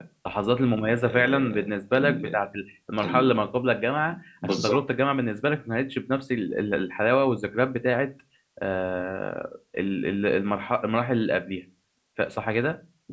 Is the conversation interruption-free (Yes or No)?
No